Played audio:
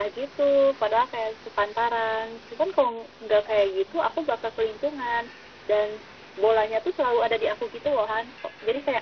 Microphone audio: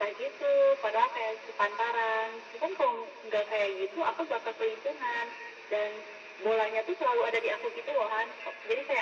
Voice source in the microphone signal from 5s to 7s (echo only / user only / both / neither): echo only